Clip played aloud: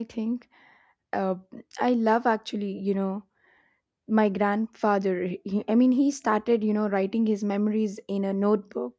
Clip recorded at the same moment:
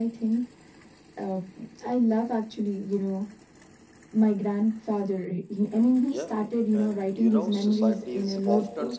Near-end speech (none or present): present